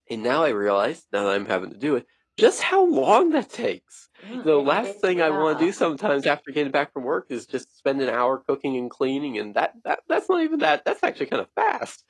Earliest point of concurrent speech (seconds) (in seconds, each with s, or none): 4.2 s